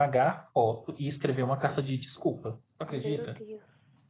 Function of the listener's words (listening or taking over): taking over